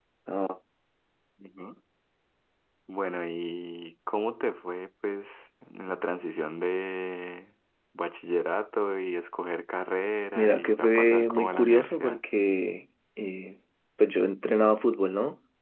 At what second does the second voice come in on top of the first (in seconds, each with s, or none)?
10.4 s